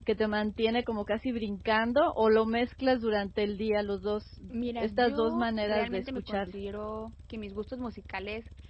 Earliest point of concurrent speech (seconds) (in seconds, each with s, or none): 4.8 s